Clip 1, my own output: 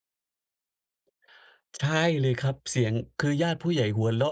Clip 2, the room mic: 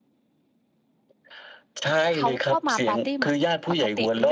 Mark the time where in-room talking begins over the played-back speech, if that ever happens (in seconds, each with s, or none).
2.2 s